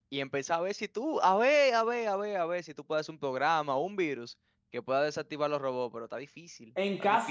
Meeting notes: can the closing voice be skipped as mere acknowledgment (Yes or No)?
No